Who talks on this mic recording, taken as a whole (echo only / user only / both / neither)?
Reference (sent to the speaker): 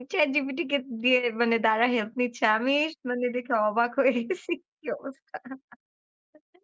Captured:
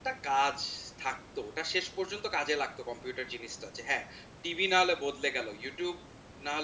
user only